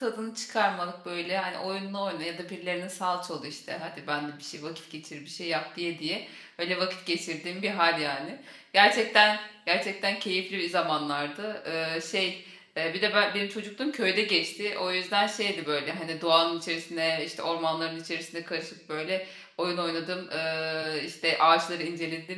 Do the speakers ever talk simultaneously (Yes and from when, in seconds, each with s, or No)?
No